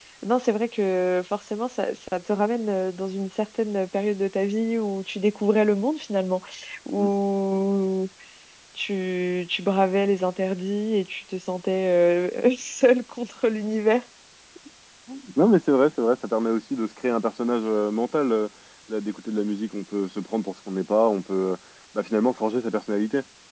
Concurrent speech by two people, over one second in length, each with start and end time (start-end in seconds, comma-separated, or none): none